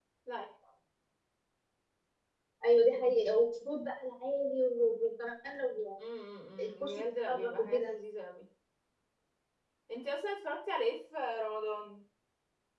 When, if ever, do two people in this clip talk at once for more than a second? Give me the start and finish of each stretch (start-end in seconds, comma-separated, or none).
6.6-7.9